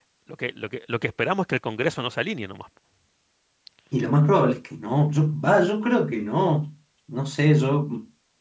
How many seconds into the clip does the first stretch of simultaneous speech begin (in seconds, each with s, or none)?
none